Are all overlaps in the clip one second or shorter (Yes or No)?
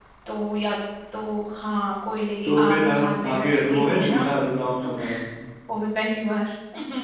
No